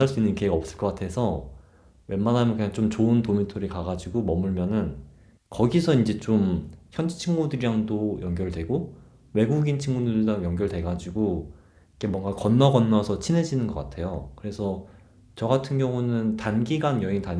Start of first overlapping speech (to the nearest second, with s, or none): none